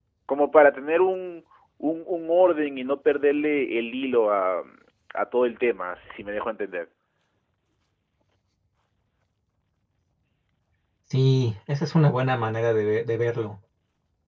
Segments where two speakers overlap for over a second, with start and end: none

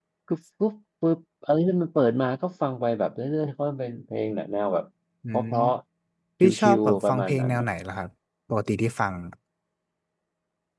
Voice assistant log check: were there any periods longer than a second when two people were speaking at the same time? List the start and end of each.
6.4-7.7

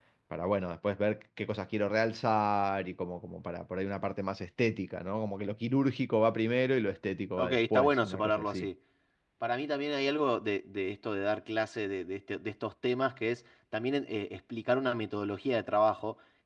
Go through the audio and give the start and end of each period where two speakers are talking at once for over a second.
7.4-8.7

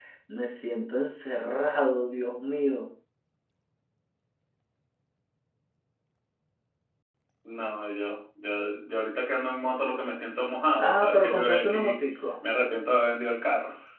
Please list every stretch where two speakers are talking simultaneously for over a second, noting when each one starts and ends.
10.8-12.0

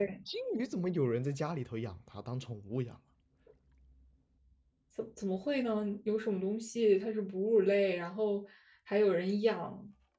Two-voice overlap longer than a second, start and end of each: none

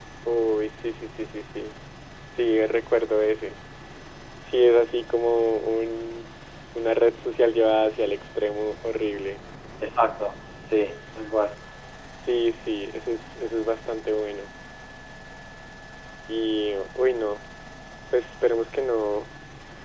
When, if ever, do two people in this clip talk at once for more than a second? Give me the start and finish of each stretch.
none

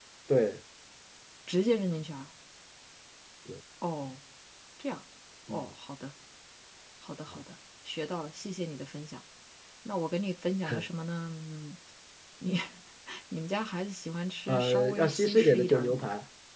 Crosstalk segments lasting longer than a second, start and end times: 14.5-16.1

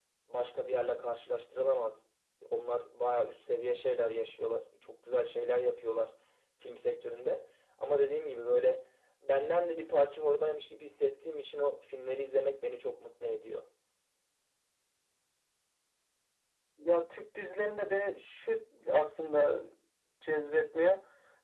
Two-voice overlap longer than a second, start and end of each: none

